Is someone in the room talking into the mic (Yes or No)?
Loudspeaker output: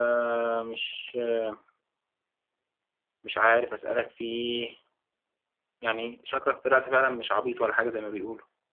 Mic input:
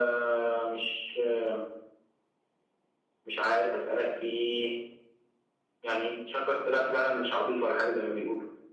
No